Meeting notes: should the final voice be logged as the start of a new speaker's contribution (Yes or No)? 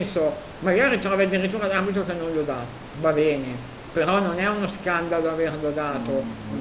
Yes